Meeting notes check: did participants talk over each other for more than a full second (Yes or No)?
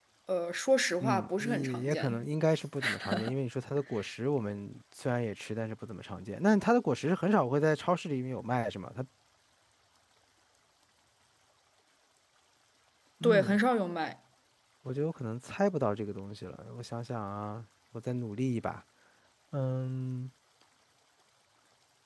Yes